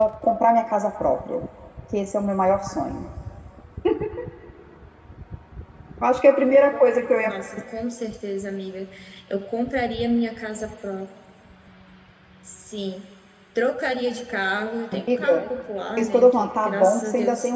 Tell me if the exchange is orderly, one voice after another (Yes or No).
No